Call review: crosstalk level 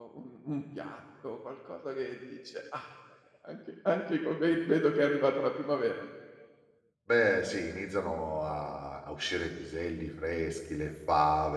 none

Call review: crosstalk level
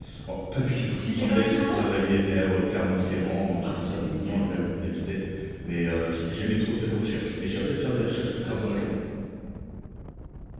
present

